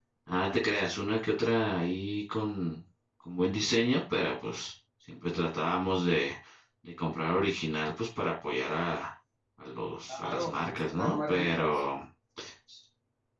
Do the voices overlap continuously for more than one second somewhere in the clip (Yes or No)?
Yes